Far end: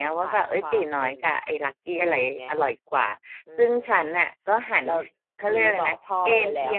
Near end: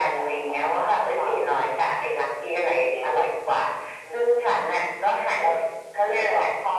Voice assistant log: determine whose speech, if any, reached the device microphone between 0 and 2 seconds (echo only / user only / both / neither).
echo only